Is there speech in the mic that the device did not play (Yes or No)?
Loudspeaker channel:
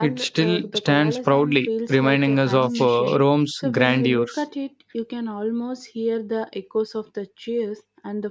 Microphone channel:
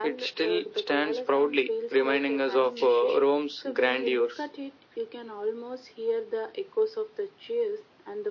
No